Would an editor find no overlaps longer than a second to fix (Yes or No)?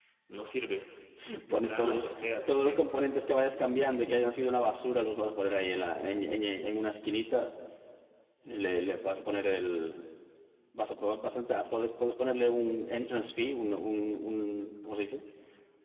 No